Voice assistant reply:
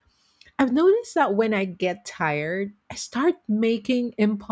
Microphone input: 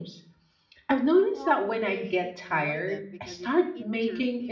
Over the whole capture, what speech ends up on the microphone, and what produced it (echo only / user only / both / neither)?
both